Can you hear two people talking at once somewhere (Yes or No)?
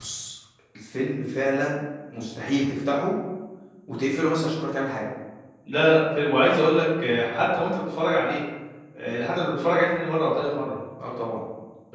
No